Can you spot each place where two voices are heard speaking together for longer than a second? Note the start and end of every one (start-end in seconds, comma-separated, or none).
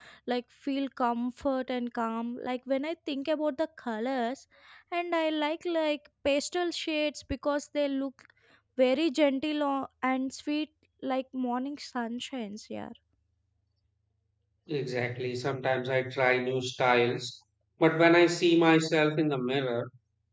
none